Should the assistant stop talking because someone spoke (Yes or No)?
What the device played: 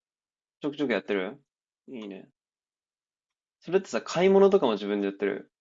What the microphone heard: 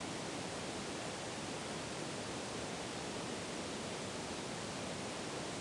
No